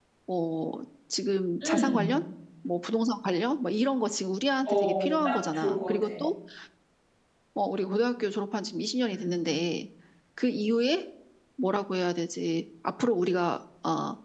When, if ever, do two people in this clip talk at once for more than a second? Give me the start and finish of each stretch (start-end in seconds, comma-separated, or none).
4.7-6.1